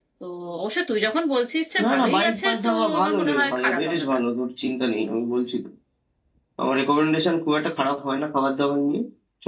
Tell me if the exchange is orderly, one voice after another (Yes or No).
No